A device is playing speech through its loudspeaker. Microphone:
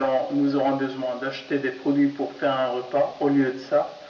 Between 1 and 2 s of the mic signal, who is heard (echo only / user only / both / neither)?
echo only